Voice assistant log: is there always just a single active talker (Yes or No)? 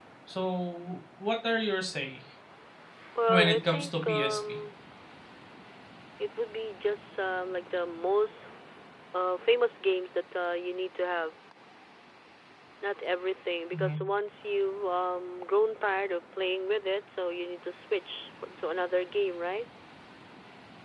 No